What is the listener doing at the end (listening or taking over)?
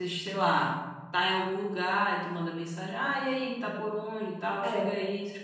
listening